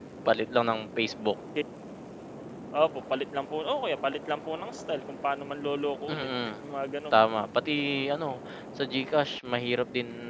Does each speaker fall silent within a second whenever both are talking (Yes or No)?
Yes